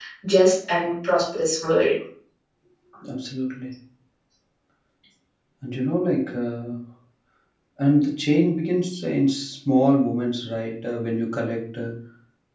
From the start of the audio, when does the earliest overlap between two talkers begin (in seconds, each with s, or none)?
none